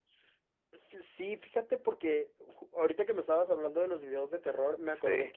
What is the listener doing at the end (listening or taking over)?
listening